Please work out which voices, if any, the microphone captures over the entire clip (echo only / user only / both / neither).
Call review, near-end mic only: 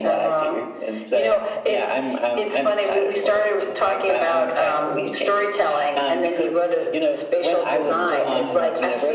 both